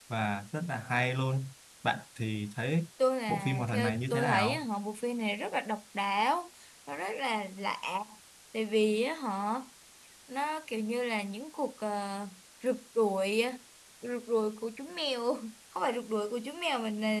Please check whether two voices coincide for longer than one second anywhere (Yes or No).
Yes